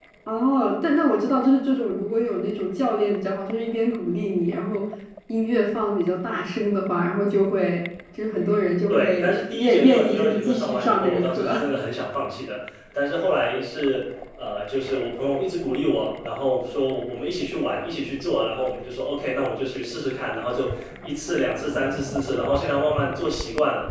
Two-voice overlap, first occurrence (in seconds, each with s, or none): 8.9 s